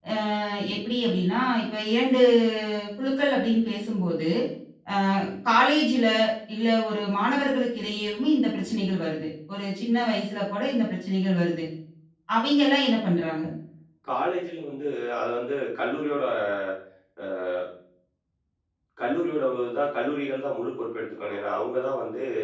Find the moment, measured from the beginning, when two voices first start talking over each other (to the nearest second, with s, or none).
none